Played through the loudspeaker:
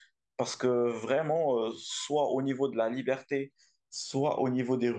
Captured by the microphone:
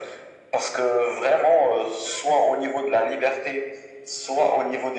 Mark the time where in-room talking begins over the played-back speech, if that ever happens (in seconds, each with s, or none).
none